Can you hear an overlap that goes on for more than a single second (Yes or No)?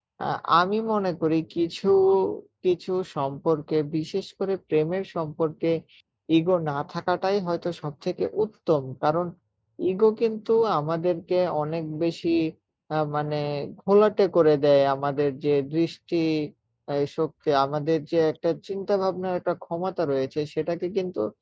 No